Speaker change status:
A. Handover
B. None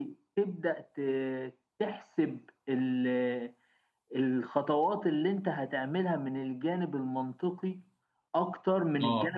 B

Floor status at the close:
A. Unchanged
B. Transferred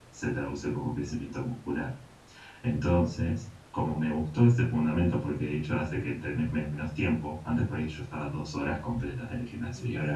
A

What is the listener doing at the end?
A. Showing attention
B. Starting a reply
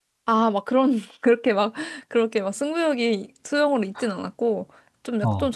A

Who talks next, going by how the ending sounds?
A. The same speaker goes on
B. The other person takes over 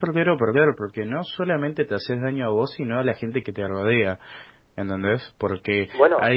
A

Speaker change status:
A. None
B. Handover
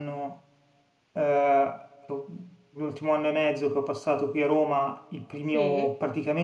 A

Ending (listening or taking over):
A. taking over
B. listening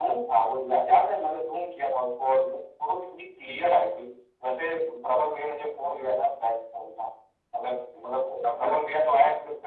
B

